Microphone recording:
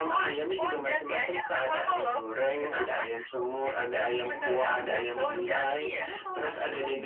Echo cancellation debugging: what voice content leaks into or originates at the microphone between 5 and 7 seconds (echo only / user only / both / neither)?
both